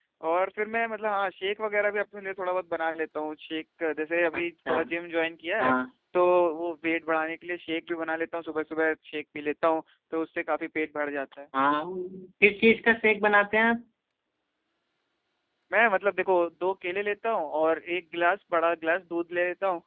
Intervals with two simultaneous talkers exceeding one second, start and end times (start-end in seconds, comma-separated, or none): none